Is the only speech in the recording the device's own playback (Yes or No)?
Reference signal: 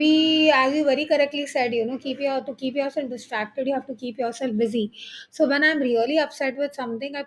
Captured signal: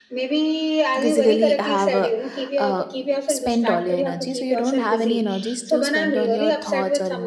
No